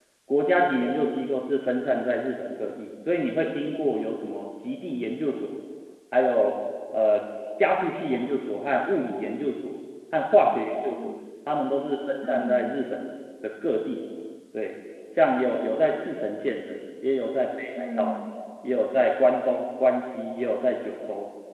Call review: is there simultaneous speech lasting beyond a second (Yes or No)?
No